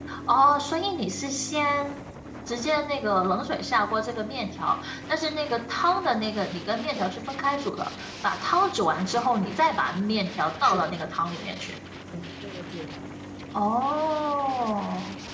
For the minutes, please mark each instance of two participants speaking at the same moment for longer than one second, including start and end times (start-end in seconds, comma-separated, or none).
none